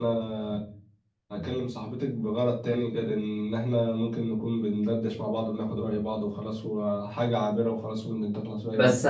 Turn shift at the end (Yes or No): Yes